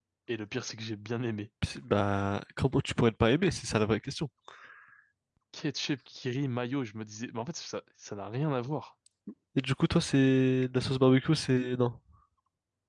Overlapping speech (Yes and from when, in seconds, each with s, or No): No